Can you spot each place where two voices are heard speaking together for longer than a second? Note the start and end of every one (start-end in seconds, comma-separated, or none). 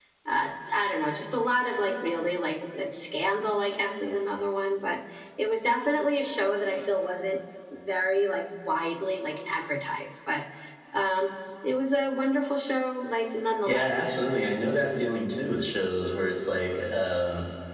none